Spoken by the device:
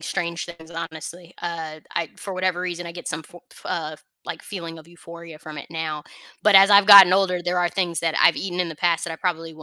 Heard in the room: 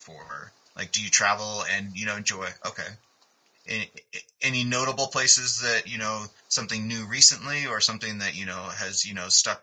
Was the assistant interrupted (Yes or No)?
Yes